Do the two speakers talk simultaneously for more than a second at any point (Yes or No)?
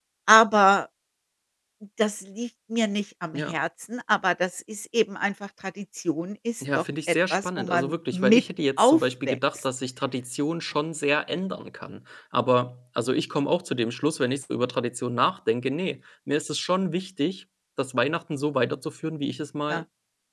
Yes